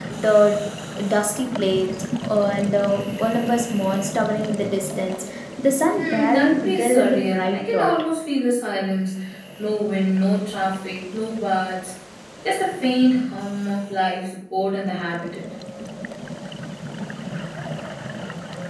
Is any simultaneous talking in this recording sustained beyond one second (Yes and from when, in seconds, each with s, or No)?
Yes, from 5.9 s